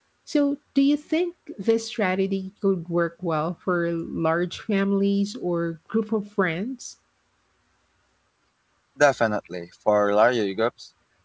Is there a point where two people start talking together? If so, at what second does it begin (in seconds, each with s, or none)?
none